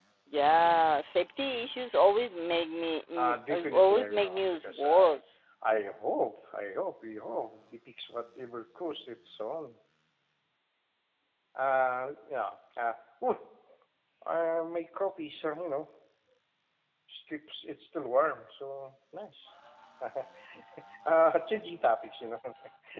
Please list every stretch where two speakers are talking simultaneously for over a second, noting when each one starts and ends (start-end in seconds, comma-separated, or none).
3.2-5.2